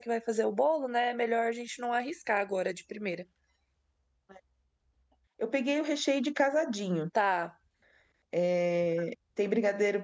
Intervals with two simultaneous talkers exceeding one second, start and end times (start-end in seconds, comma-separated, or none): none